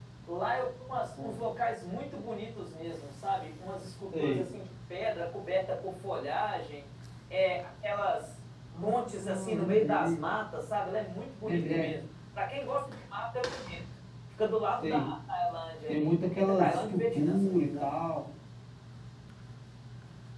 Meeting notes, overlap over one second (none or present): present